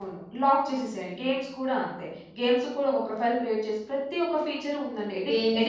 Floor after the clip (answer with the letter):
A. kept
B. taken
B